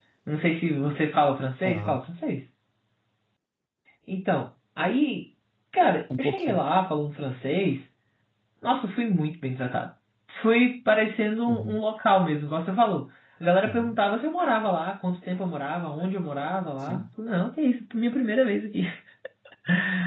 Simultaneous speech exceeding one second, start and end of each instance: none

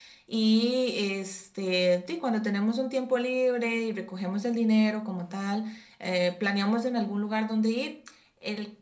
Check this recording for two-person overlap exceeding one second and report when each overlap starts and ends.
none

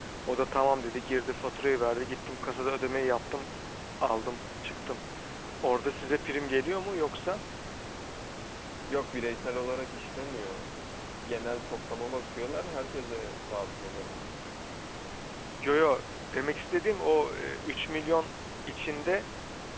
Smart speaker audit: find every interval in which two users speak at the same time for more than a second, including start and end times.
none

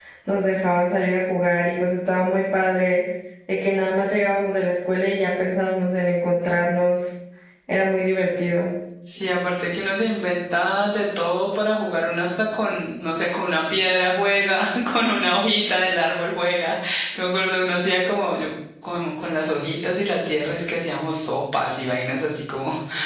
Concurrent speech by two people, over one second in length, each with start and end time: none

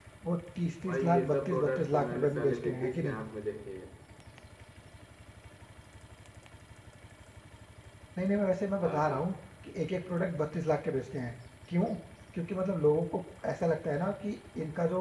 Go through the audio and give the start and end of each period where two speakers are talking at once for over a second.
0.9-3.2

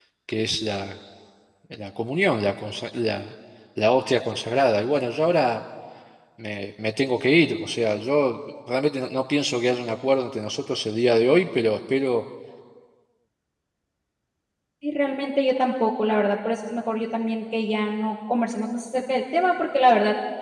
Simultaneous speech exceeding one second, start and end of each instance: none

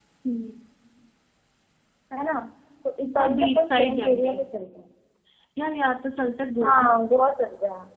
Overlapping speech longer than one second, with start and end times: 3.0-4.3

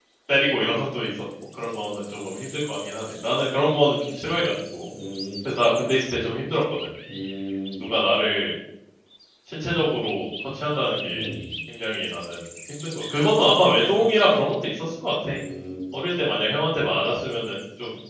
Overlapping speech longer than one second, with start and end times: none

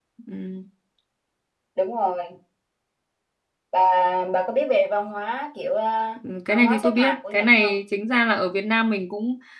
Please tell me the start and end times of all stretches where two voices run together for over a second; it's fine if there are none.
6.5-7.8

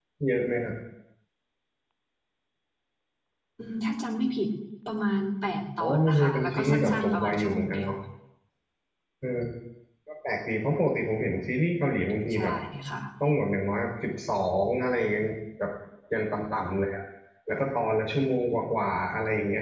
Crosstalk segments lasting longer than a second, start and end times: 5.8-7.9

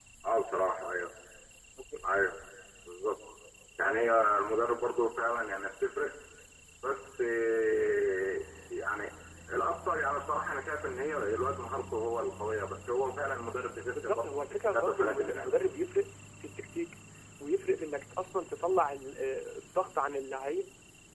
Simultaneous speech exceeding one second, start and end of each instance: 13.9-15.6

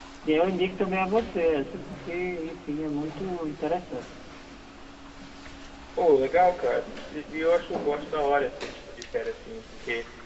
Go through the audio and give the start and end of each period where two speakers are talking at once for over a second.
none

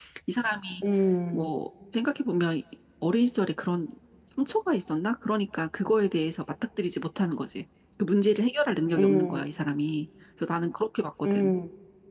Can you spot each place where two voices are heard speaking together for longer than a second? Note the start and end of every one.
none

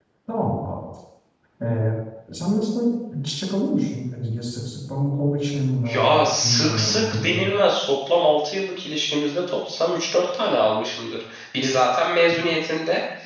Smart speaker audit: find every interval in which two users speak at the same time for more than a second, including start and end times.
5.9-7.4

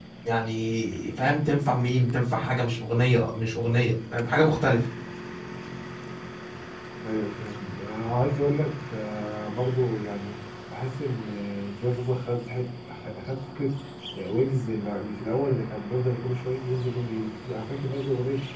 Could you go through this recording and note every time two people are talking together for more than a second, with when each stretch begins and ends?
none

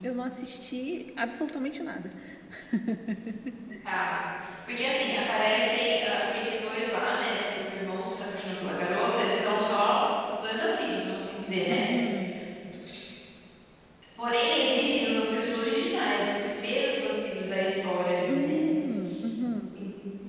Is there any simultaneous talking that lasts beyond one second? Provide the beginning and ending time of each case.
none

